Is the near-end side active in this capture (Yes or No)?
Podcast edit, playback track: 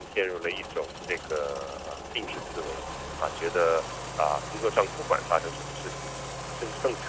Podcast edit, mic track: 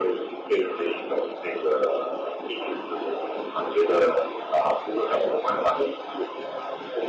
No